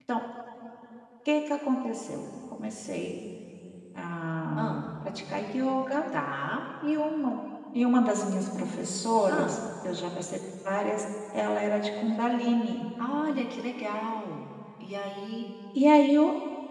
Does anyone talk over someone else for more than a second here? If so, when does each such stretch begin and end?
none

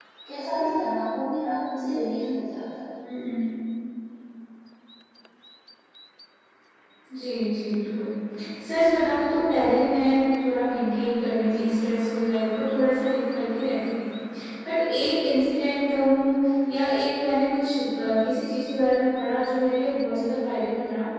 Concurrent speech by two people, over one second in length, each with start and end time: none

